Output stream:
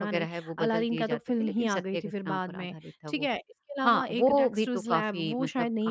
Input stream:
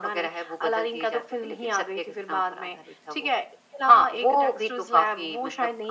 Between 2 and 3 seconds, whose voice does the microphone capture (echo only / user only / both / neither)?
echo only